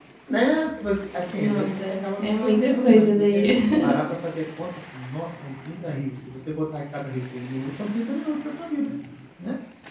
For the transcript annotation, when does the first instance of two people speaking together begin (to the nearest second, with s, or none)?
1 s